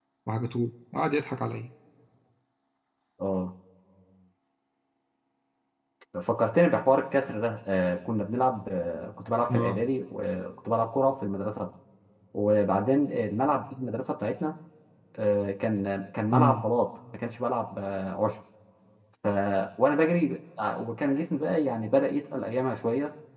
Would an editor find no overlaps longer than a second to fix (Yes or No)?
Yes